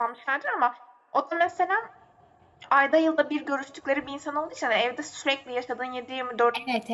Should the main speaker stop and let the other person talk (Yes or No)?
Yes